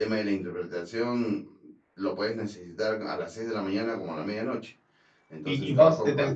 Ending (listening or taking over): taking over